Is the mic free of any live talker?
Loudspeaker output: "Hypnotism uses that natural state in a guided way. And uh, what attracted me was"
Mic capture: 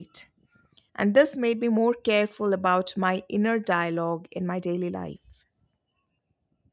No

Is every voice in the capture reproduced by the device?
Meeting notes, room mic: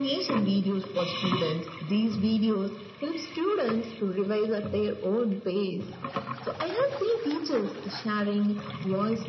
Yes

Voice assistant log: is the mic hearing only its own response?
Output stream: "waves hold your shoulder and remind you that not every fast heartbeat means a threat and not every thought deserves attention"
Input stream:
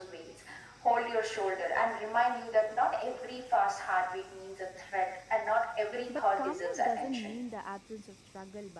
No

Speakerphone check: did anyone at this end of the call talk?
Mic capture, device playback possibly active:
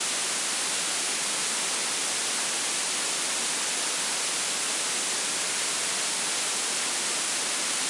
No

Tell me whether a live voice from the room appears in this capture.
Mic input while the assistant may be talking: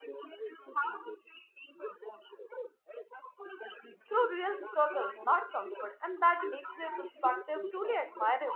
Yes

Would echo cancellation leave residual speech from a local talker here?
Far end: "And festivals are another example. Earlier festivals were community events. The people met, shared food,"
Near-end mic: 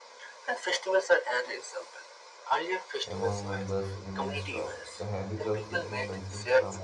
Yes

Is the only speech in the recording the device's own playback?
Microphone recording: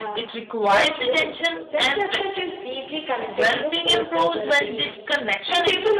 No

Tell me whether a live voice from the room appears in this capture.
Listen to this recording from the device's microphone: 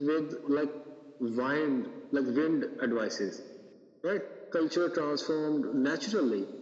No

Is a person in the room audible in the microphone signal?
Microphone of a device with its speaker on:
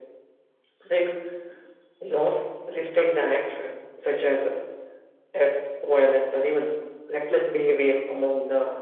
No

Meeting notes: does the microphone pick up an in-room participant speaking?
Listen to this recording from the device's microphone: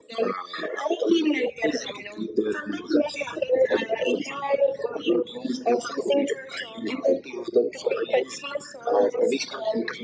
No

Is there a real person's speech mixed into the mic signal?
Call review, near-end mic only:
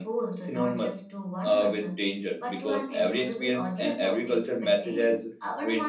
No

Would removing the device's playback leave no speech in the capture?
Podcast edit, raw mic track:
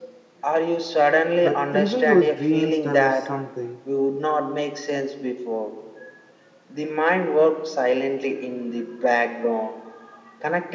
No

